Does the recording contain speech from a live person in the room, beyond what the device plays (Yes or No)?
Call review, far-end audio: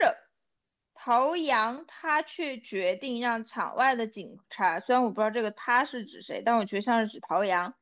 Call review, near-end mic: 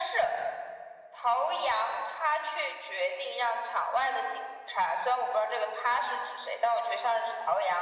No